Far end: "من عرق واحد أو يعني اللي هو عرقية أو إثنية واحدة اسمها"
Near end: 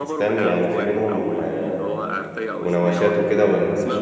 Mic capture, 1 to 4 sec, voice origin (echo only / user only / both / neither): both